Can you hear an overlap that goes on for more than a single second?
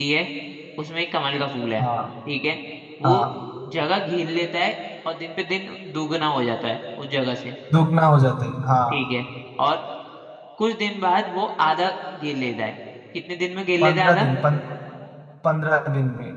No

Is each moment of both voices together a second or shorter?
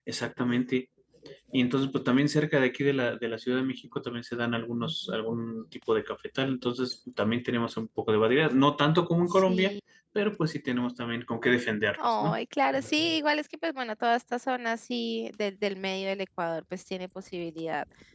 Yes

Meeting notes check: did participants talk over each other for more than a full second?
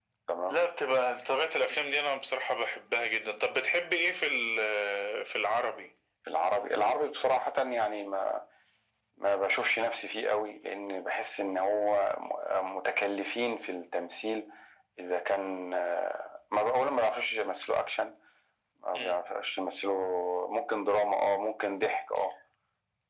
No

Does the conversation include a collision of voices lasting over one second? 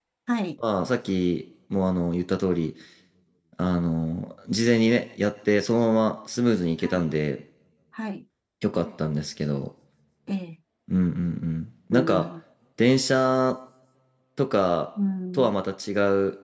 No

